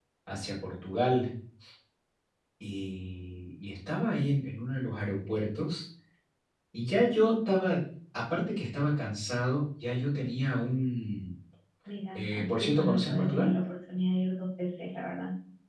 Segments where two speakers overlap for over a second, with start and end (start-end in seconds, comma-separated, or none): 12.1-13.5